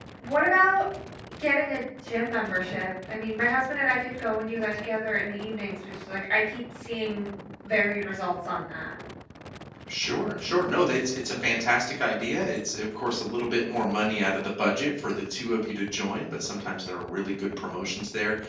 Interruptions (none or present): none